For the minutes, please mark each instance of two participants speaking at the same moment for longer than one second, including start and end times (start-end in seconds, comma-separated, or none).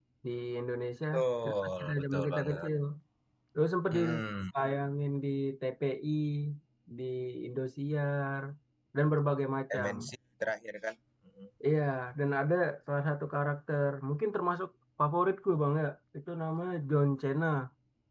1.4-2.7